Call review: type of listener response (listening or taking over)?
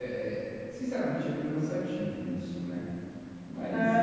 taking over